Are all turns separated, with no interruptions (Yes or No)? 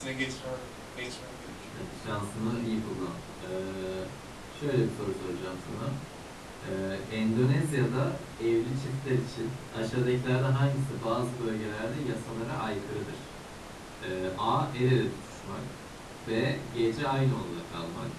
Yes